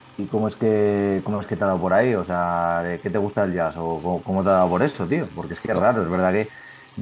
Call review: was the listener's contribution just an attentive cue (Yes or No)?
Yes